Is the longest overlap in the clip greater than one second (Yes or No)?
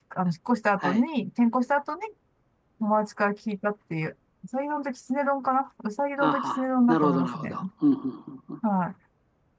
Yes